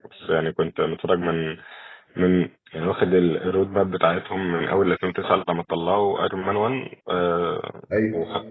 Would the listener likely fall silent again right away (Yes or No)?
Yes